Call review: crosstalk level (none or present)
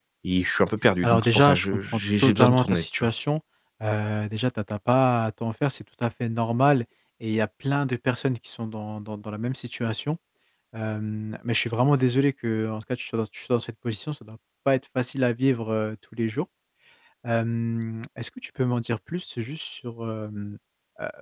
present